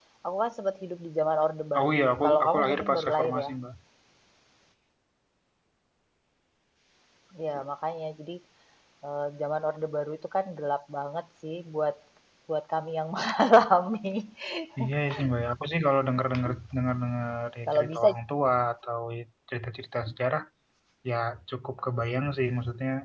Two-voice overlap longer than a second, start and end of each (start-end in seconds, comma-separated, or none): 1.8-3.5